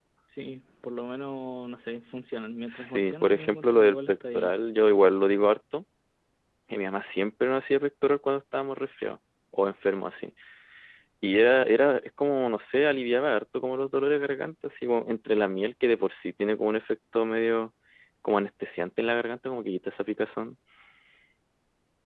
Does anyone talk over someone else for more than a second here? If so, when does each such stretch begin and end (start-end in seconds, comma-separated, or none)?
2.7-4.6